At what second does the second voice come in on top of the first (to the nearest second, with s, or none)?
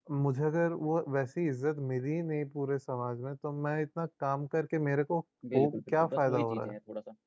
5 s